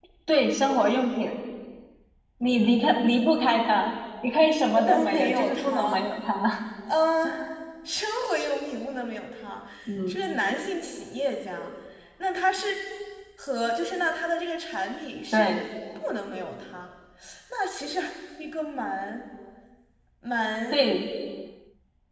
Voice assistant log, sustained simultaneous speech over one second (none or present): present